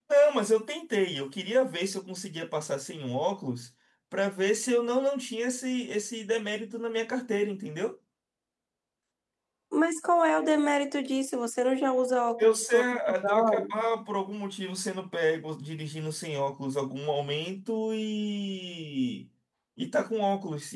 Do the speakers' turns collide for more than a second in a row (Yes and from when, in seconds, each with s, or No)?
Yes, from 12.4 s